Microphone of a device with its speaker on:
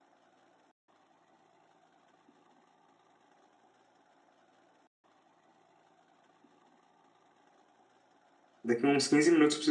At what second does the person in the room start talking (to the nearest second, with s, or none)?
9 s